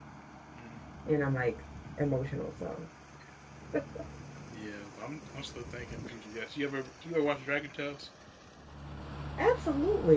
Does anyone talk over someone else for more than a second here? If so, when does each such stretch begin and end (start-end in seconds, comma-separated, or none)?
none